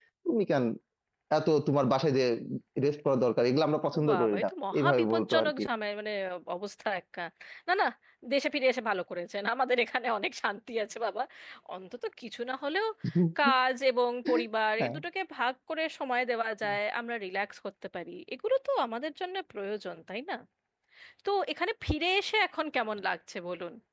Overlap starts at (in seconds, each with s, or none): 3.9 s